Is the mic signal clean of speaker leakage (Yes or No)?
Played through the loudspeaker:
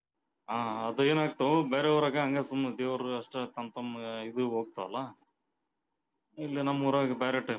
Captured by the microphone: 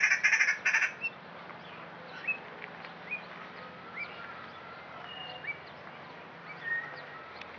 Yes